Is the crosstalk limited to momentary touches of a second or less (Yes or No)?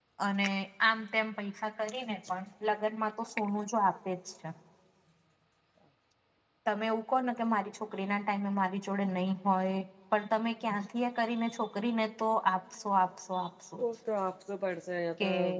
Yes